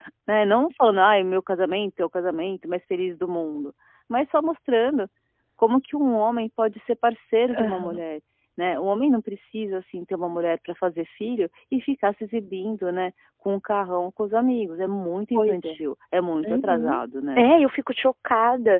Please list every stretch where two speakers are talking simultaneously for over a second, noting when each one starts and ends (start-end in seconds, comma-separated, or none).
none